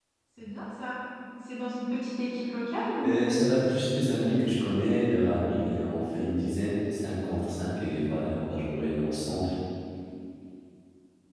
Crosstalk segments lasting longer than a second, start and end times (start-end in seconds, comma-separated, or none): none